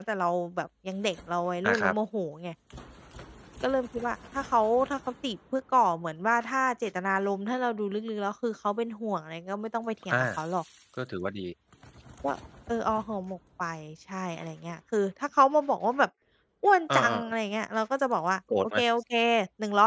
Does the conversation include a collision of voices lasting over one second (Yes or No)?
No